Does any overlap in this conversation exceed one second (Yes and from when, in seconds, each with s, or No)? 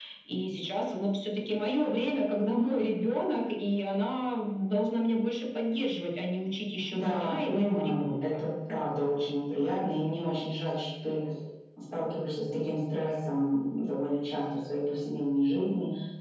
Yes, from 6.9 s